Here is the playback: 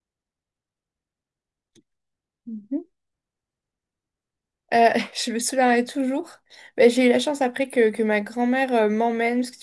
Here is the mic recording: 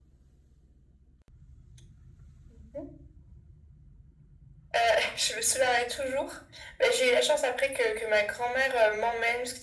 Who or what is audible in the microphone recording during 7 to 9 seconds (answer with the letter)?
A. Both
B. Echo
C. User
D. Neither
B